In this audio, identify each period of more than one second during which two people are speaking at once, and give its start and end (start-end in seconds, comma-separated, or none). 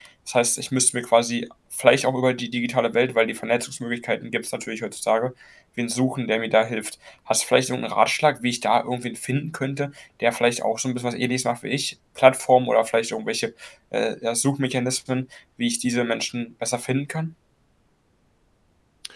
none